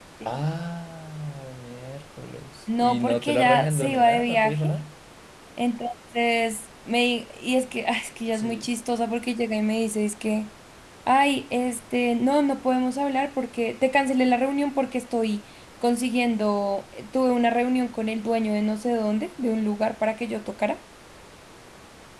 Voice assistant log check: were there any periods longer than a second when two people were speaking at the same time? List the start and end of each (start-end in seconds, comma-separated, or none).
2.8-4.7